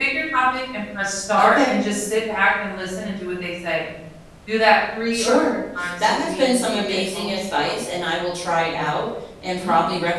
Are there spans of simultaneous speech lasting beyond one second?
Yes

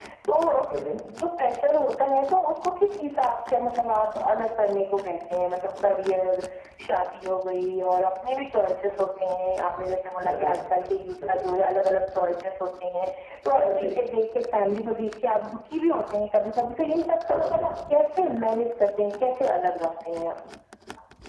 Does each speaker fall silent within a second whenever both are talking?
Yes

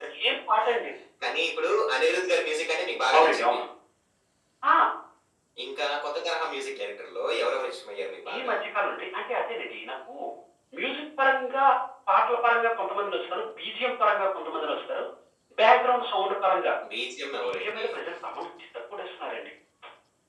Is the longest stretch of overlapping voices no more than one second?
Yes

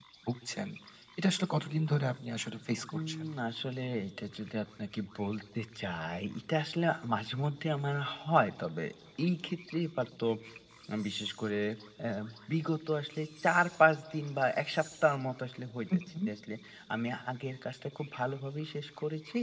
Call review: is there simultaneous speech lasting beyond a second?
No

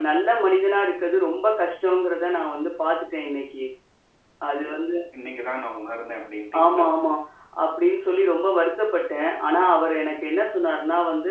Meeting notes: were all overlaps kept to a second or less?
Yes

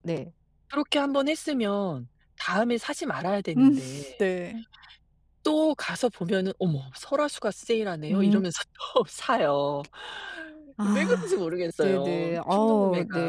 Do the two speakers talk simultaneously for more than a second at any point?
Yes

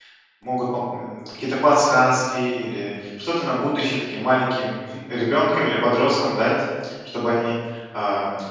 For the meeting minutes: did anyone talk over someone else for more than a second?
No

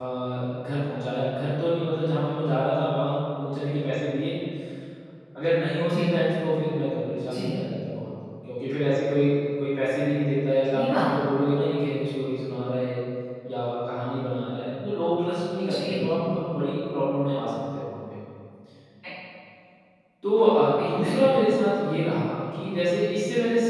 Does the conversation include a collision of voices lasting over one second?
No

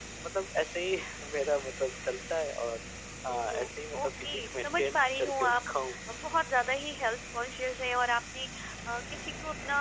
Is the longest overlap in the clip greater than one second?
Yes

